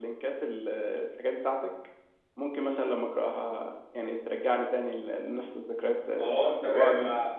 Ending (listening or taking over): taking over